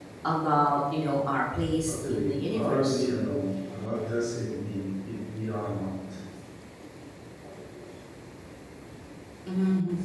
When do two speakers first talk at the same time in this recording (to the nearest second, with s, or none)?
2 s